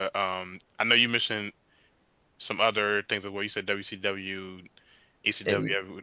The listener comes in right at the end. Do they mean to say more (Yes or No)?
No